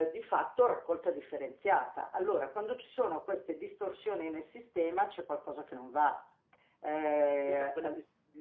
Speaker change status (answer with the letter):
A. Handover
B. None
A